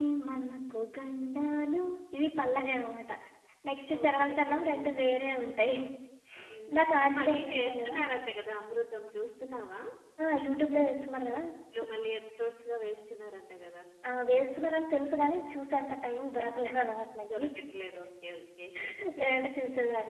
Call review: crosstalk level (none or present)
present